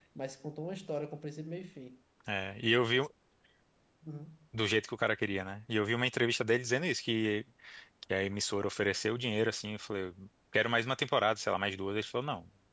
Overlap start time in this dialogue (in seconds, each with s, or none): none